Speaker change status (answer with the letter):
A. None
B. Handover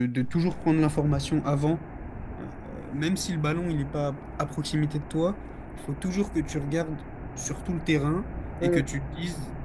A